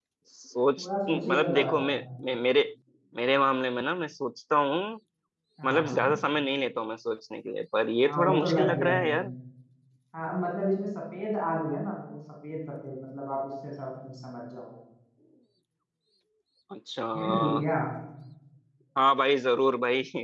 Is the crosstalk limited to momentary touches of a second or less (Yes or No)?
No